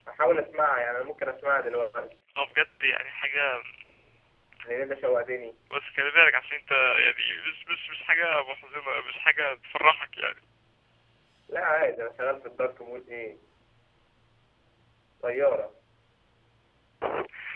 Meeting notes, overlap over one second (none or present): none